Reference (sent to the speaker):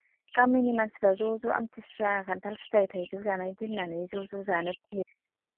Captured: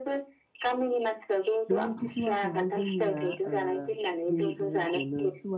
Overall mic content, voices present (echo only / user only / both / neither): both